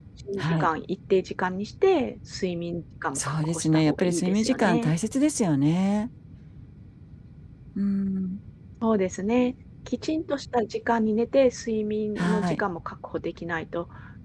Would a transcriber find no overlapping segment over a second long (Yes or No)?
No